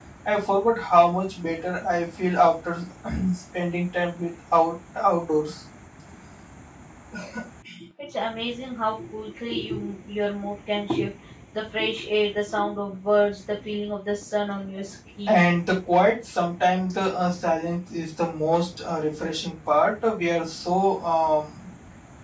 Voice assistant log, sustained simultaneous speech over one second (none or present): none